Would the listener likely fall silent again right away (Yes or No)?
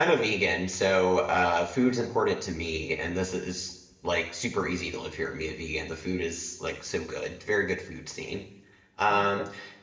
No